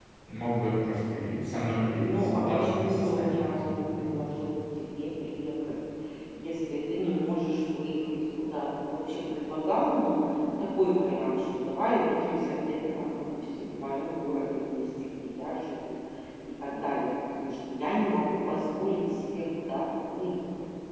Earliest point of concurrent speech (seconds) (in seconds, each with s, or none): 1.9 s